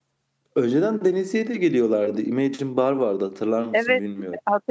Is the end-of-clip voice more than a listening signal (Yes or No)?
Yes